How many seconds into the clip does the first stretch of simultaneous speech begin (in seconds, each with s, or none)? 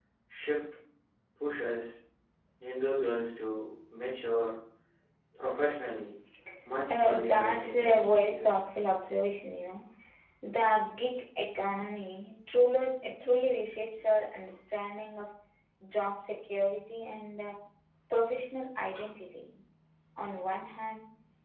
6.9 s